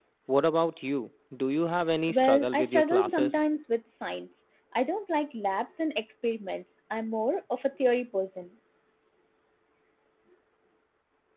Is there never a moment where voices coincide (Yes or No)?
No